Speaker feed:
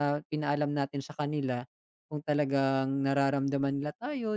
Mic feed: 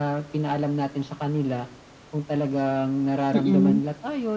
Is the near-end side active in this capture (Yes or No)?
Yes